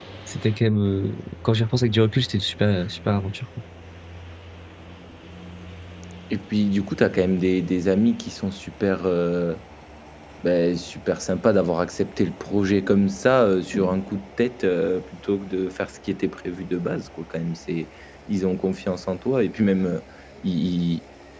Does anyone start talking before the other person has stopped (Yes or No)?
No